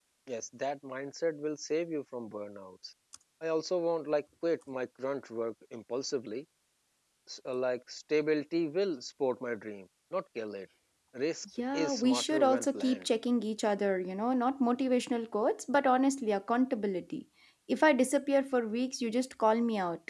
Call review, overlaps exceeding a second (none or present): present